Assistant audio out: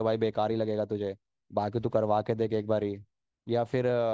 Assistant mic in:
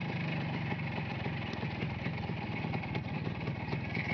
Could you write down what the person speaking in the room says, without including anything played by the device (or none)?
none